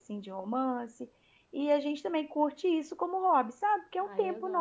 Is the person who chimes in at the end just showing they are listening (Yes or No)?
No